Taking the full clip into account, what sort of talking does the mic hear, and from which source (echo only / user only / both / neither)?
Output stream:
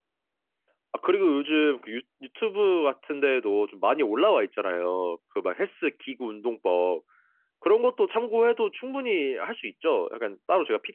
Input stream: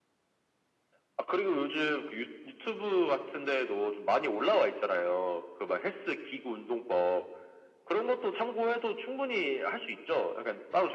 echo only